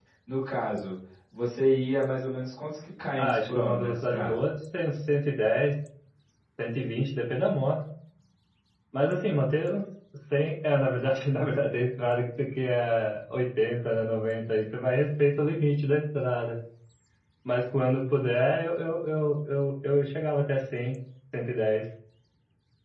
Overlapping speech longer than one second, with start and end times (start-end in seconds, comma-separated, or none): 3.2-4.4